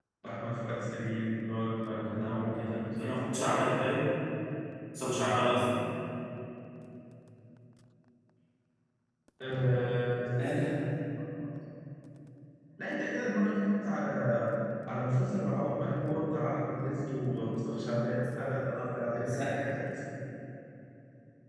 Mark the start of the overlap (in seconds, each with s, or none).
1.9 s